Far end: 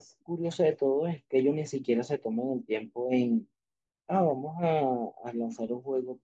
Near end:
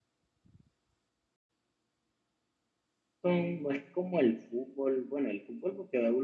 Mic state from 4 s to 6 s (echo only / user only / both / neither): user only